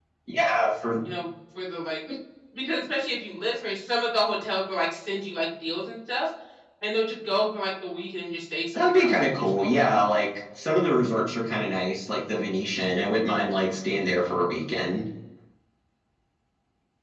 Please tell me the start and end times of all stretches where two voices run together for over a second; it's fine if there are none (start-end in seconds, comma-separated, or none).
8.8-10.1